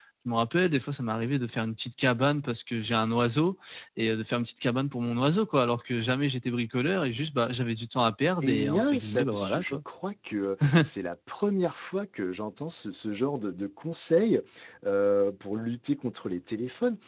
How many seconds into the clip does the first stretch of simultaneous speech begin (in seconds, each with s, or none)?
8.4 s